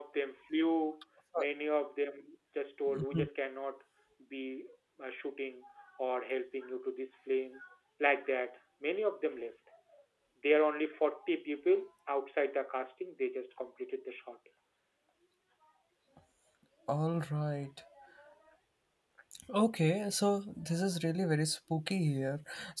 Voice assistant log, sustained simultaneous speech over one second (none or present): none